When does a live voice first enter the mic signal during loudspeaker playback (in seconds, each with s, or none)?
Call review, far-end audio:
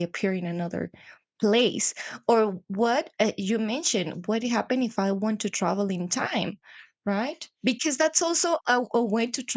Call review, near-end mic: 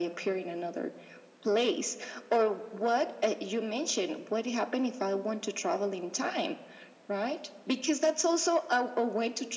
none